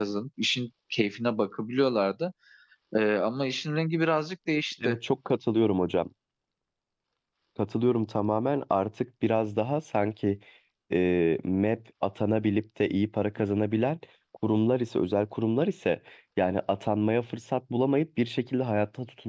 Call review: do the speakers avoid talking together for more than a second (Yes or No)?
Yes